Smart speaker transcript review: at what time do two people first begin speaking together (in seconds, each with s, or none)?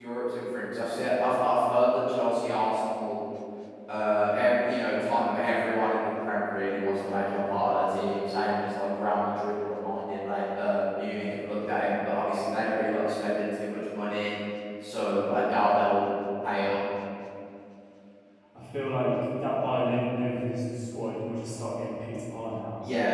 none